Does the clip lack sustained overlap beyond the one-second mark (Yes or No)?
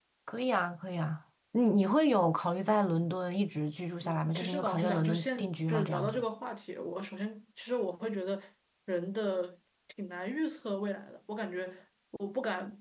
No